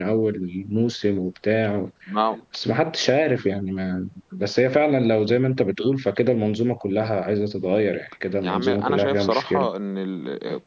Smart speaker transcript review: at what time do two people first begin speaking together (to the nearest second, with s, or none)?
8 s